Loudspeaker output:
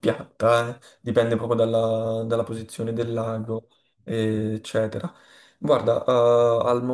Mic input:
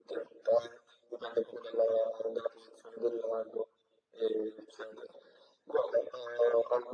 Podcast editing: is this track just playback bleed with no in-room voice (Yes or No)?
Yes